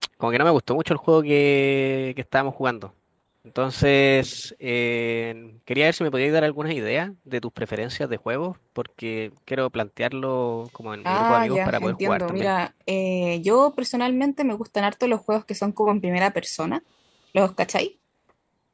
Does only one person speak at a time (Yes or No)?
No